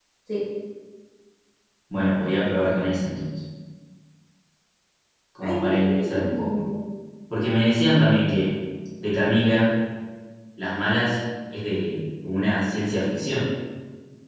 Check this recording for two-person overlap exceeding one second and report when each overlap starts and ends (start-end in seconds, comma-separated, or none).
5.4-6.6